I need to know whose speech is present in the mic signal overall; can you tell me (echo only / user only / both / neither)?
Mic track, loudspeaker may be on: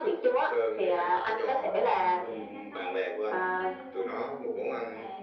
both